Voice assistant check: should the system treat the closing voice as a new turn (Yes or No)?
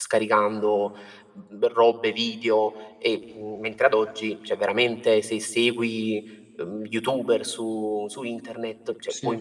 No